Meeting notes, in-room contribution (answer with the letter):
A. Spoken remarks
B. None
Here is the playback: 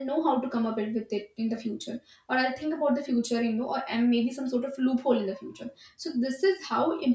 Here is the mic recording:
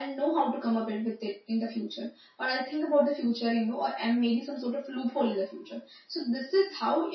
B